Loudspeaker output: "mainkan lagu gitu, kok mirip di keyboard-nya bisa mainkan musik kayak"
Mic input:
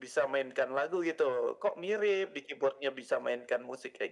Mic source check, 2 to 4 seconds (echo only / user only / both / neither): echo only